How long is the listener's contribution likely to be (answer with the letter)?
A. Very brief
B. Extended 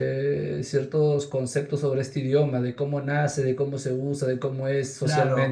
B